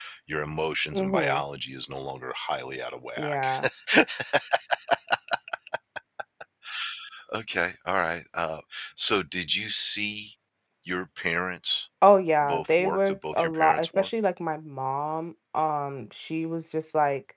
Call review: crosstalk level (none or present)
present